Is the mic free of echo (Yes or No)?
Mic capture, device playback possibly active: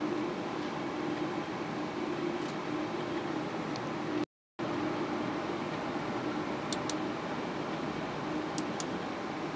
Yes